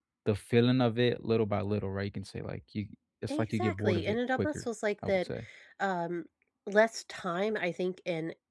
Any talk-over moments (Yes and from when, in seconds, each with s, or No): Yes, from 3.3 s